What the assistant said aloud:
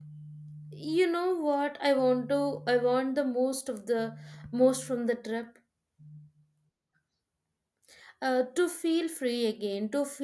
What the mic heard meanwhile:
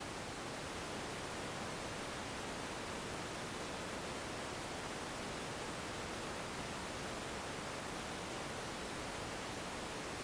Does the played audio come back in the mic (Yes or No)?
No